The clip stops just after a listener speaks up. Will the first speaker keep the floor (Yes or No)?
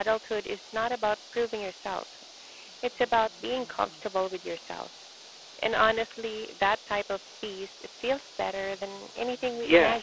No